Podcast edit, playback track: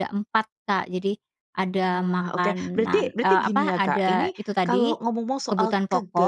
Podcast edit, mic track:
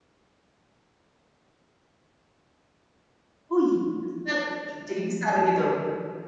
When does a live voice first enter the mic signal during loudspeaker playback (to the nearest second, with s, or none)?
4 s